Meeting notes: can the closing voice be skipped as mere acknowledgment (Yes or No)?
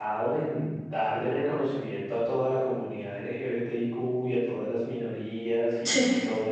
Yes